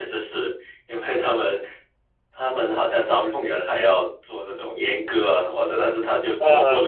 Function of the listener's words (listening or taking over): listening